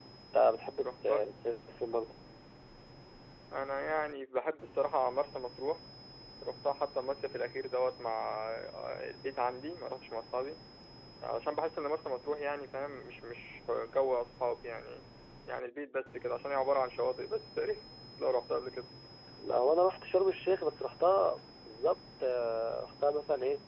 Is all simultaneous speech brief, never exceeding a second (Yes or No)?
Yes